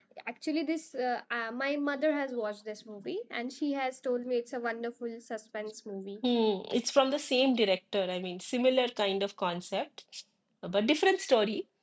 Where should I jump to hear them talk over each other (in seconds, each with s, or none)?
none